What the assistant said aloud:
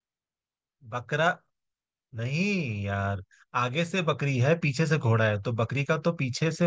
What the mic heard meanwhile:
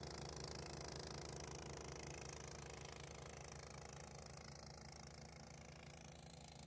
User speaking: No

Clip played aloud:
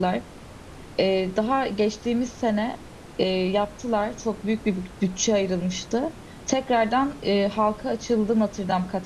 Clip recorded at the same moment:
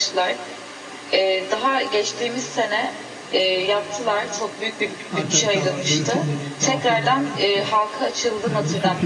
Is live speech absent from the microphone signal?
No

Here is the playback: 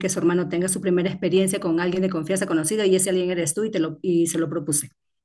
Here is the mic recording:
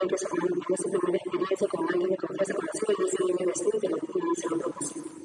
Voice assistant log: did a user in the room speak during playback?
No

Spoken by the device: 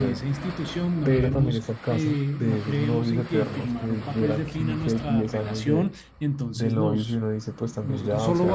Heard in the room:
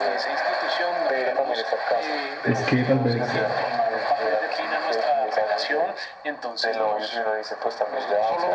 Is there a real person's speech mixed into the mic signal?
Yes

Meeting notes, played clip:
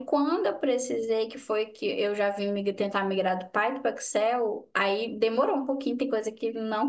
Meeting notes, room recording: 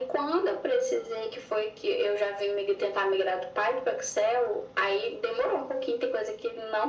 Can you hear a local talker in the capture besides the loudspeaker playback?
No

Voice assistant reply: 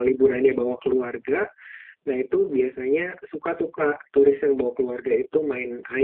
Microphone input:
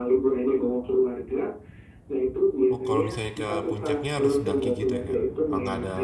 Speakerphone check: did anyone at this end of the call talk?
Yes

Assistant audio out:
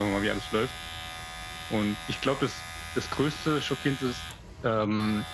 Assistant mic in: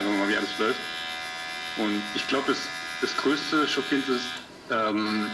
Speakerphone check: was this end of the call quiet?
Yes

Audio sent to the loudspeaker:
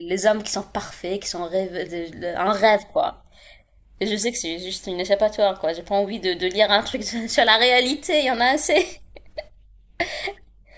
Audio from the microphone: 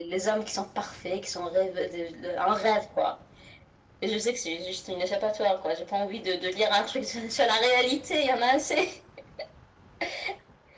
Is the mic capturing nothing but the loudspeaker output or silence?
Yes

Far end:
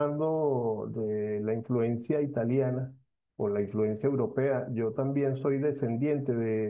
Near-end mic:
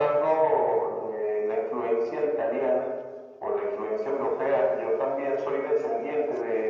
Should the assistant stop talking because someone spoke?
No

